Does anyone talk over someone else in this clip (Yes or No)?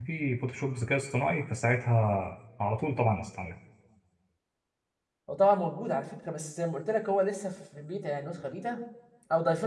No